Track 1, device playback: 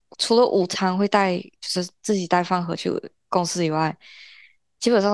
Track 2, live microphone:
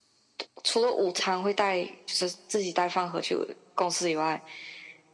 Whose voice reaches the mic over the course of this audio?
echo only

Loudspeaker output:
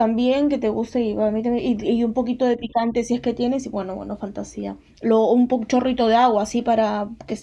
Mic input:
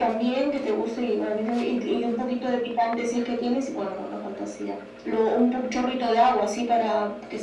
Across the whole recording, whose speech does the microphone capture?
echo only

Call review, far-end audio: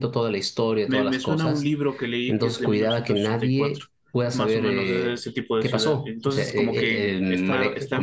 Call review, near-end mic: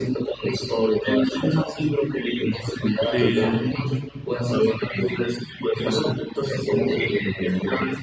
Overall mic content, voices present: both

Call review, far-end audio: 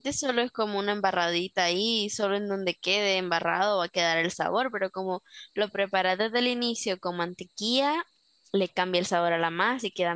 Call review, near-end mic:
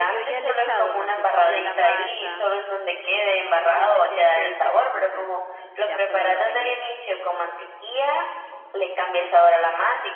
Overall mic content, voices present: both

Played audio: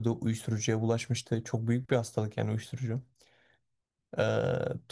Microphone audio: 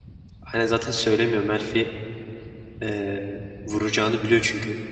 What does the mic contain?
user only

